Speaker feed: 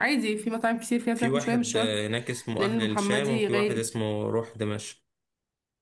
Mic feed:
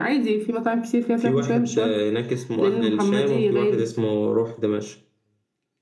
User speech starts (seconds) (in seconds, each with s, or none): none